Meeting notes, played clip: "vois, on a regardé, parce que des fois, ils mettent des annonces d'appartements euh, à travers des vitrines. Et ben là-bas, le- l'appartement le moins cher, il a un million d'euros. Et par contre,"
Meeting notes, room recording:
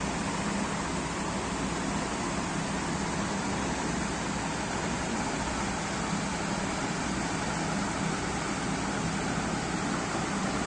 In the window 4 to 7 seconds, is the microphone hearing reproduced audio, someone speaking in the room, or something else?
neither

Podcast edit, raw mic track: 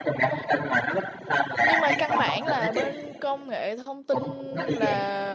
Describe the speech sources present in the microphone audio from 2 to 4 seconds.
both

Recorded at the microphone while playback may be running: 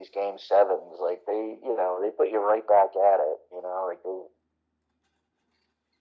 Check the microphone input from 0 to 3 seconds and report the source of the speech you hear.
echo only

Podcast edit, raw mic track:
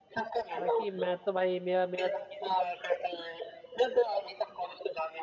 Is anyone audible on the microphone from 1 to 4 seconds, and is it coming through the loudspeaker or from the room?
both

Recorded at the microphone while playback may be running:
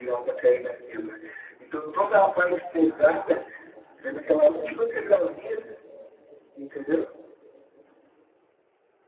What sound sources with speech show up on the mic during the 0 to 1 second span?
echo only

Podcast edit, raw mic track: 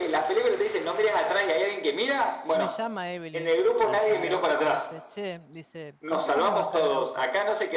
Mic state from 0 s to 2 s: echo only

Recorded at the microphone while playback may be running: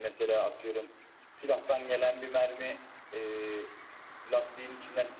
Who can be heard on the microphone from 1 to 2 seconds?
echo only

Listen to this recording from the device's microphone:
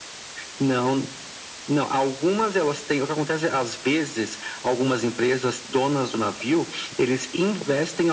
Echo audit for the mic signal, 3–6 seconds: echo only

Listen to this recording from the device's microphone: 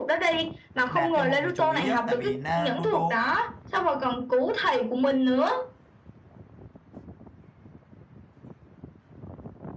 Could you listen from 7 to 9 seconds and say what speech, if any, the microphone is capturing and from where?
neither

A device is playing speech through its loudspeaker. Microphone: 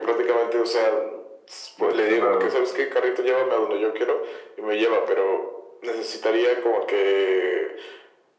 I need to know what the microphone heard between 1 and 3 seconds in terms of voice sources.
both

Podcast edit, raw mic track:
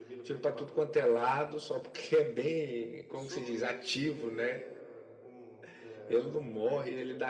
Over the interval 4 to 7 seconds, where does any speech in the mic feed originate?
both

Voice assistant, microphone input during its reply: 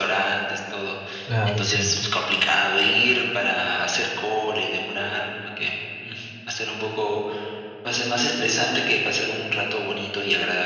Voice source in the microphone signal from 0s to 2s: both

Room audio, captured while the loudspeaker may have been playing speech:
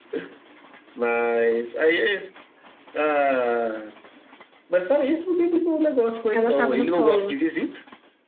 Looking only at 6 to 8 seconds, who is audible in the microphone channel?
both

